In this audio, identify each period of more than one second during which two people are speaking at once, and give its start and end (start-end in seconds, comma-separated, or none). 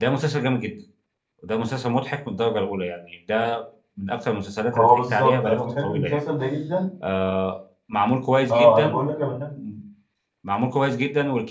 4.7-6.2